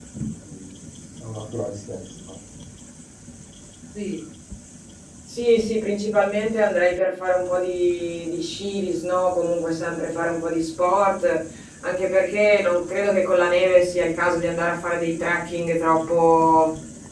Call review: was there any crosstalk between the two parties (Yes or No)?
No